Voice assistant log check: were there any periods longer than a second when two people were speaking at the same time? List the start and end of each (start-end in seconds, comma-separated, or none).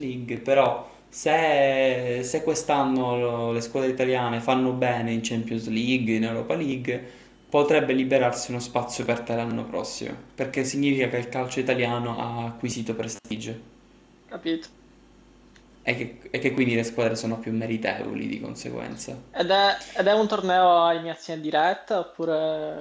none